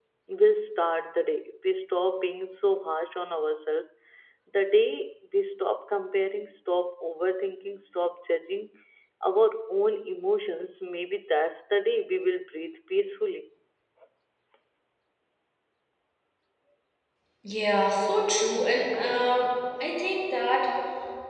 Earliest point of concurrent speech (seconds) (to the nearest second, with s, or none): none